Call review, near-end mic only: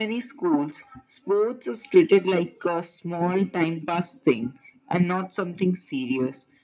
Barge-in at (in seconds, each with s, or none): none